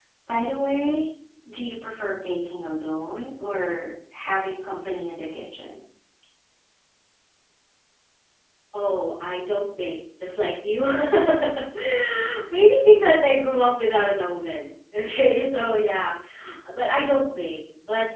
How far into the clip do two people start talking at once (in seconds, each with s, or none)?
none